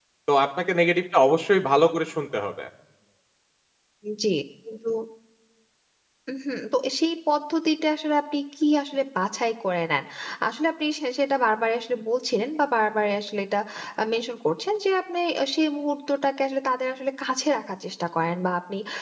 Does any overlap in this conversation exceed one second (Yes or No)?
No